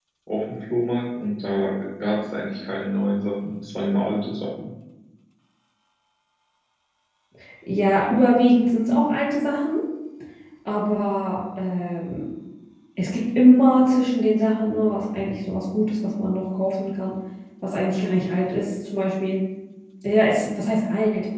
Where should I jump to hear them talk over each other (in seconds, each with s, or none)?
none